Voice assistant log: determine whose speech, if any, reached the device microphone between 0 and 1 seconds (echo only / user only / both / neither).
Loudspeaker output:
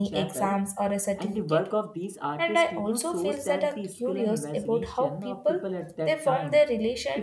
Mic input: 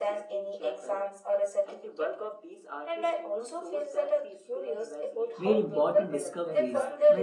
echo only